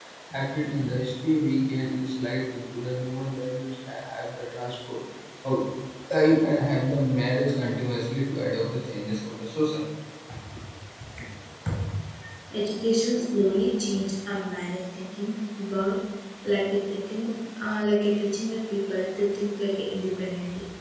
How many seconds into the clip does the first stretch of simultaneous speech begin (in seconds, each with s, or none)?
none